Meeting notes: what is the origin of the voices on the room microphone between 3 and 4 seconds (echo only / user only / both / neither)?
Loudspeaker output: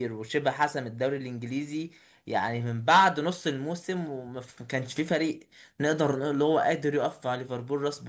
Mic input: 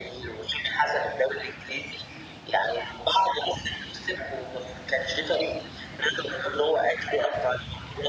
echo only